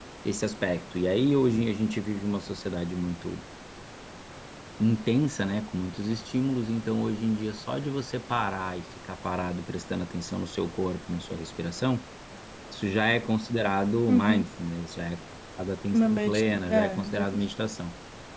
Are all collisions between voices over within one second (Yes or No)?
No